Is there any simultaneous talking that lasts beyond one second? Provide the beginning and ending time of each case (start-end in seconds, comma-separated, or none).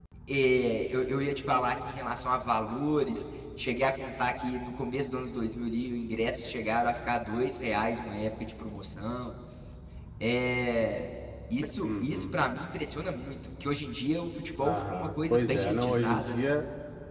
14.6-16.5